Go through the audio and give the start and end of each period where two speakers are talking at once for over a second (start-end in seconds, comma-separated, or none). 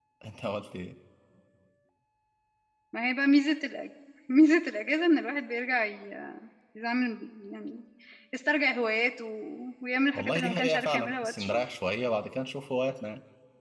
10.2-11.6